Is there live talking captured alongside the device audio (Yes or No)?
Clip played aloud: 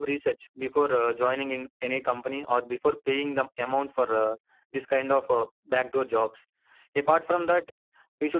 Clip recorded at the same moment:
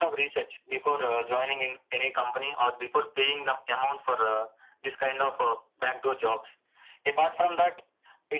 No